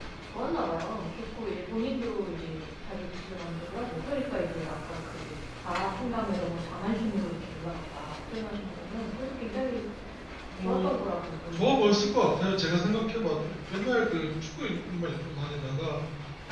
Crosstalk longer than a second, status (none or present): none